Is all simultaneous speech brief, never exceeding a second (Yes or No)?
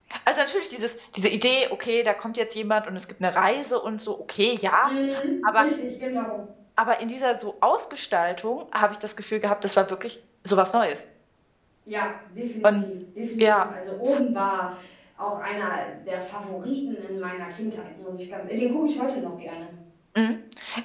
Yes